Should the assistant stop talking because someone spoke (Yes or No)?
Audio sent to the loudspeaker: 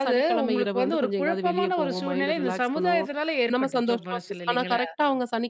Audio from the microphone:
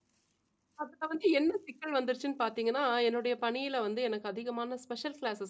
Yes